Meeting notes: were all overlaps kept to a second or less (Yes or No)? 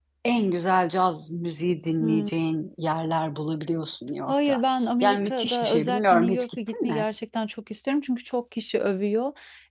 No